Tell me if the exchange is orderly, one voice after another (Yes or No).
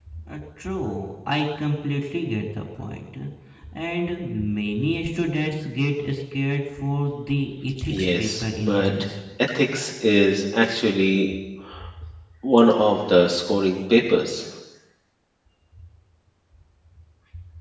No